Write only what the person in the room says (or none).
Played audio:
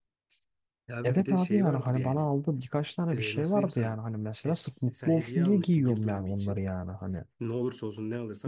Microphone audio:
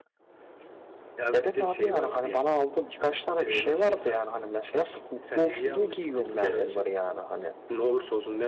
Evet.